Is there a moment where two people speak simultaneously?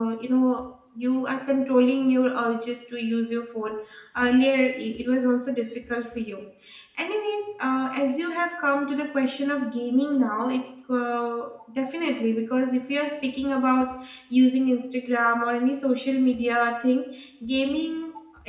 No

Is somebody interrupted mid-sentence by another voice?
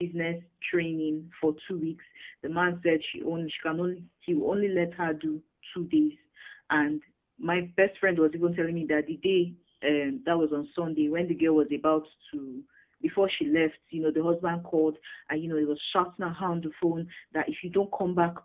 No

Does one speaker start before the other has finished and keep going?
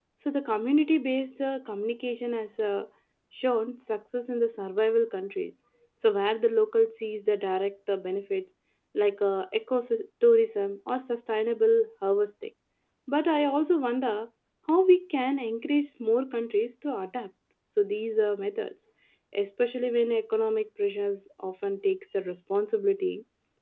No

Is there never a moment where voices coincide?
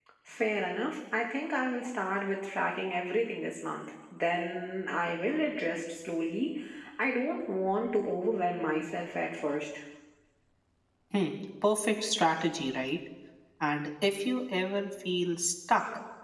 Yes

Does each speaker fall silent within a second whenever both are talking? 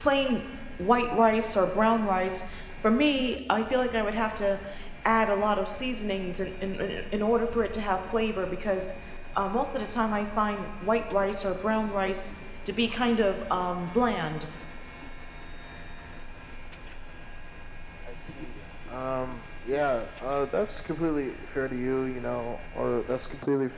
Yes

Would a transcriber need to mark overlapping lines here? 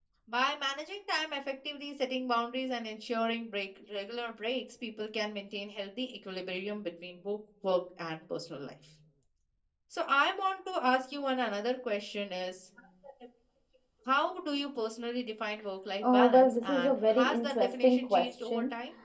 Yes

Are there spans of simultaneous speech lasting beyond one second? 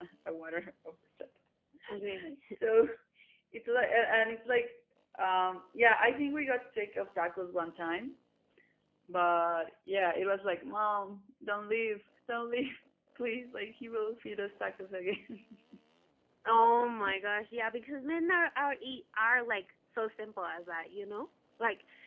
No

